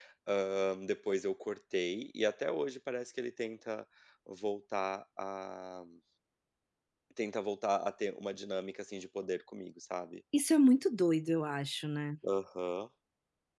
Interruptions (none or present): none